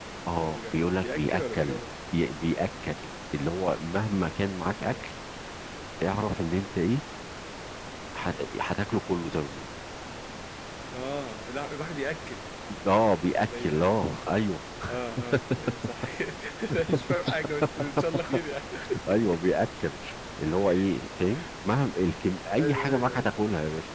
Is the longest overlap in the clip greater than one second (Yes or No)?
Yes